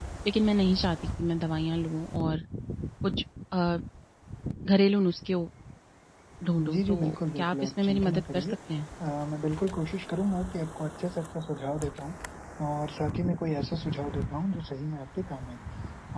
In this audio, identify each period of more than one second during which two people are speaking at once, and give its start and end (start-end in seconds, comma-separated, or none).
6.7-8.5